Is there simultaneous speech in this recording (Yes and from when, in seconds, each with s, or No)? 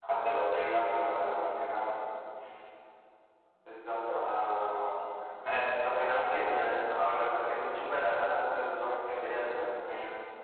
No